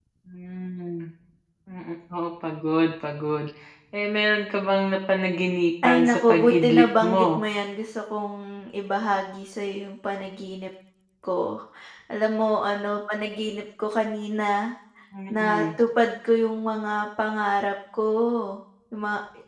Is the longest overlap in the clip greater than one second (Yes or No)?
Yes